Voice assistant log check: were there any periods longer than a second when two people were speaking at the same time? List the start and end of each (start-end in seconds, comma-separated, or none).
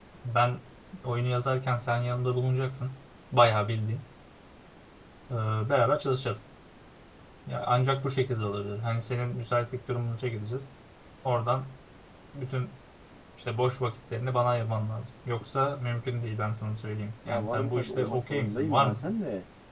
17.3-19.1